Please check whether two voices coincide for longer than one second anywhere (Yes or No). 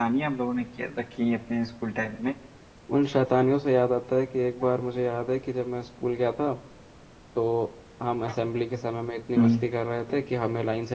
No